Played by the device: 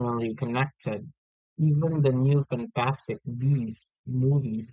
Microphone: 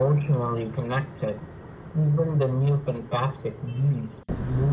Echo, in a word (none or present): present